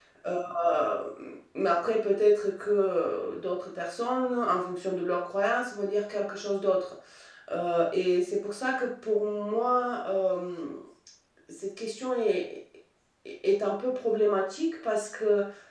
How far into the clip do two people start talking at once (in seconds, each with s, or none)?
none